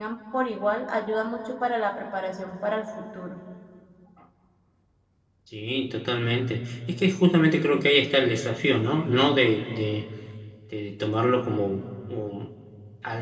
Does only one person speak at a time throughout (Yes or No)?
Yes